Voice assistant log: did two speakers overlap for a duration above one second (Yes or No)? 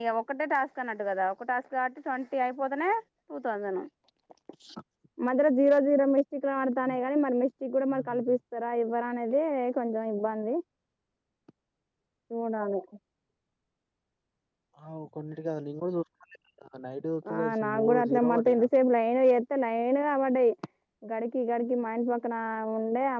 Yes